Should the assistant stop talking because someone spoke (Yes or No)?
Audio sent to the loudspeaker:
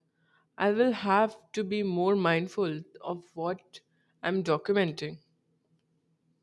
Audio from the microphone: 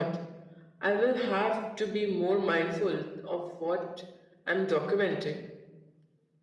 No